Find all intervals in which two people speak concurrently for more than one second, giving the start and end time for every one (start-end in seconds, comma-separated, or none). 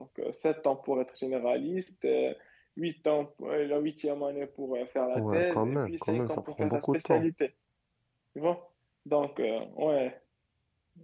5.2-7.3